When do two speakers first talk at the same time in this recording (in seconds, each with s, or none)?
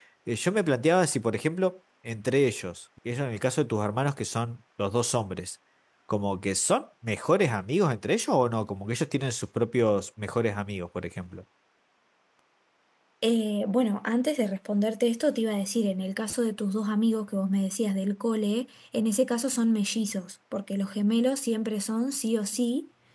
none